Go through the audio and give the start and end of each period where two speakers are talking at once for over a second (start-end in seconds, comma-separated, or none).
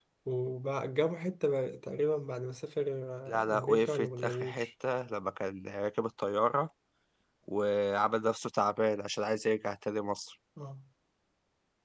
3.3-4.7